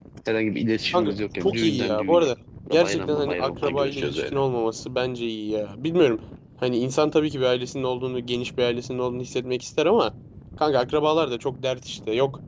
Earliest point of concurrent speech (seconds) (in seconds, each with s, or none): 0.9 s